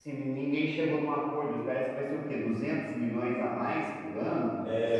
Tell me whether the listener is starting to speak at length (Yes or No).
Yes